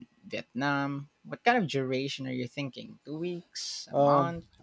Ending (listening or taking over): taking over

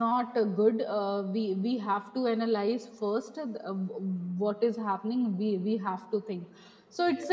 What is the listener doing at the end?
listening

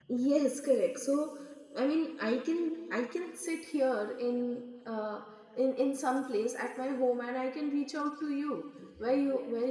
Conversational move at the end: listening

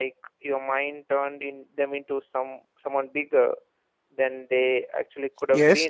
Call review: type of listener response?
taking over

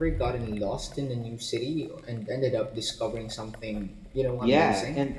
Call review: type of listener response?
taking over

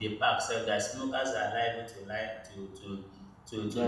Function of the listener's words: listening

